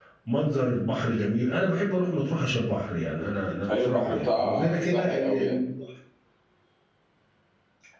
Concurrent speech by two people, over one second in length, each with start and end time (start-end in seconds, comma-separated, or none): 3.8-5.6